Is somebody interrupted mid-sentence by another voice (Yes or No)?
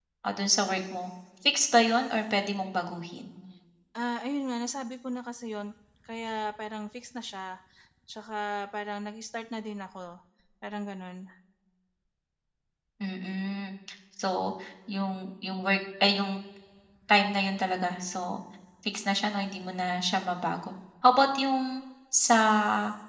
No